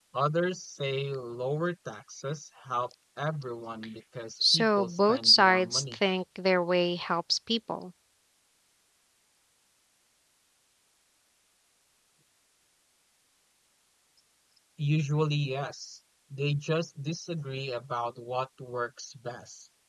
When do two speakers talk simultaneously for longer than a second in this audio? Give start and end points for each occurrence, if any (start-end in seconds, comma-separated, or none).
4.5-6.0